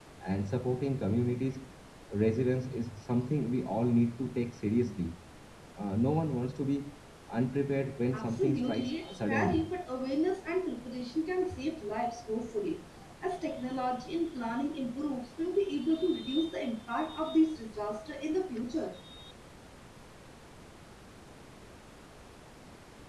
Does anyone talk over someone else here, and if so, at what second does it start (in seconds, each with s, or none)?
8.1 s